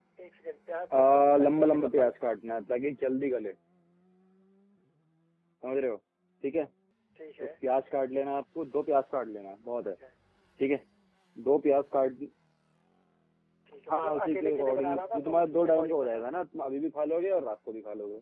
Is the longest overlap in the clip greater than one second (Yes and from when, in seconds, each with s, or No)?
Yes, from 1.0 s